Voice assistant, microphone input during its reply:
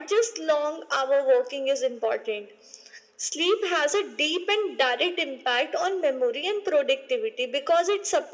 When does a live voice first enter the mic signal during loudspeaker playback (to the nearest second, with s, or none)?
none